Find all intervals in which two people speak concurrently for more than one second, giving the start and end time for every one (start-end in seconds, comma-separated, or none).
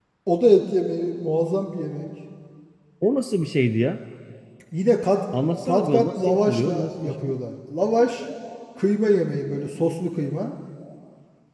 5.7-7.3